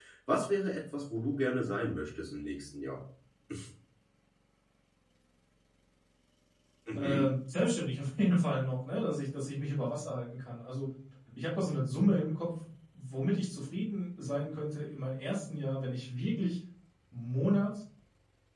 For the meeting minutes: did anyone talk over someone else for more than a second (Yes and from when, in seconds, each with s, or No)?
No